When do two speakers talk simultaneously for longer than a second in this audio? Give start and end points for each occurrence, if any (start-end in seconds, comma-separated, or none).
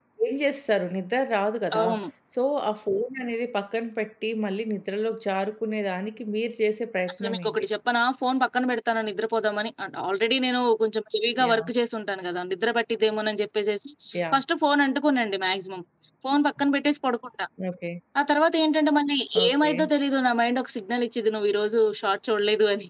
none